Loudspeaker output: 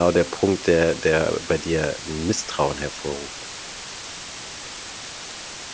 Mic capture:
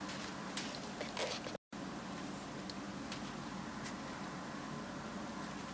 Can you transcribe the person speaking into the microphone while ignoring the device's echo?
none

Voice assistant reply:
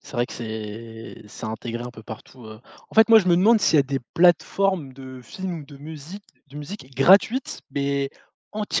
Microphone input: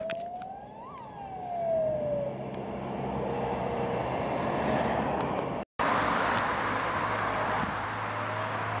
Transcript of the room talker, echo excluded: none

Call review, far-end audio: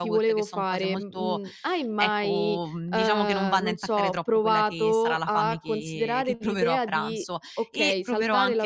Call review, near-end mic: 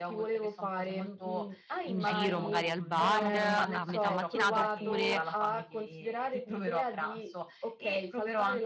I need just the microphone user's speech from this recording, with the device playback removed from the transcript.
in giro, magari al bar a metà mattinata, oppure,

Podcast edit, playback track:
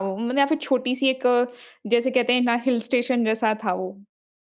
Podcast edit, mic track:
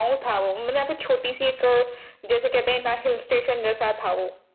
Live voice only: none

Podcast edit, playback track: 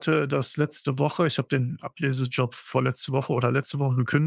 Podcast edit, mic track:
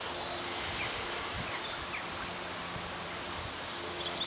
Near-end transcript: none

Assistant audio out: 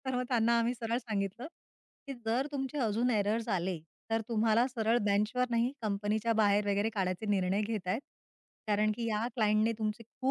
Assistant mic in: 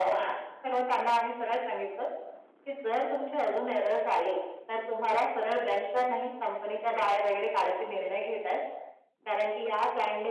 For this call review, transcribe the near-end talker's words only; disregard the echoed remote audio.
none

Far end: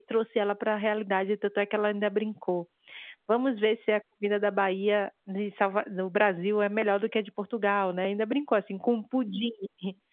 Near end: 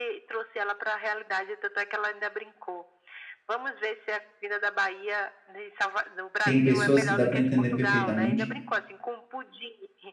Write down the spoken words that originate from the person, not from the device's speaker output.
tem pessoas que dá para entender perfeitamente.

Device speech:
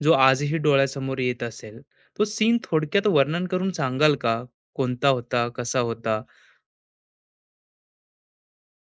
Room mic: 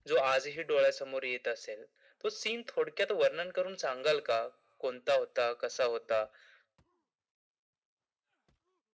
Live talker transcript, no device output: none

